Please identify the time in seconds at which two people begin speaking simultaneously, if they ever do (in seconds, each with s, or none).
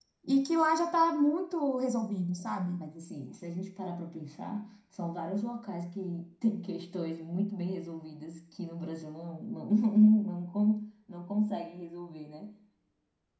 none